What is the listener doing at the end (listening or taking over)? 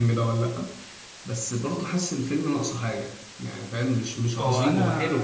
taking over